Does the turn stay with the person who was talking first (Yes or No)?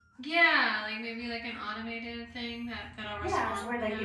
No